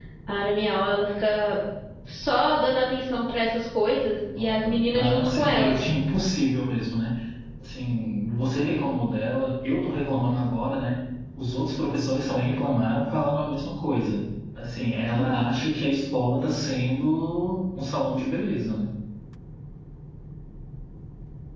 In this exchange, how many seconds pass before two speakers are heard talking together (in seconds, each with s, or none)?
4.4 s